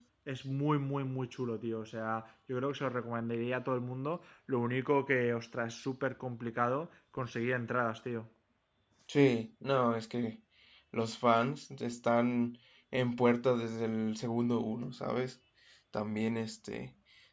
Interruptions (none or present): none